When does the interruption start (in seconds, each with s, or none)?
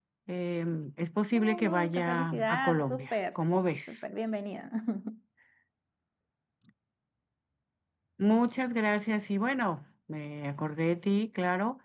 1.3 s